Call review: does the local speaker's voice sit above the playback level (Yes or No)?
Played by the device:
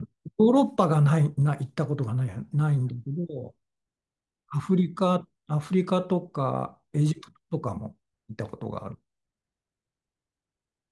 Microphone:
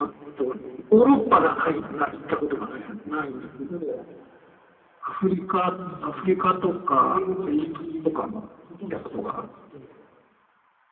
No